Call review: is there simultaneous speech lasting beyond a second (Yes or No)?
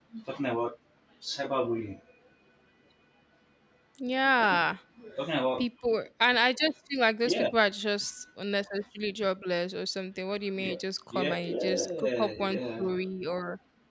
Yes